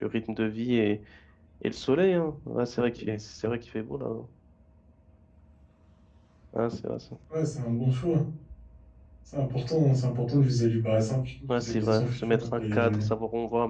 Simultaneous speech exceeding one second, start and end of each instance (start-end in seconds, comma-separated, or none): 11.5-13.0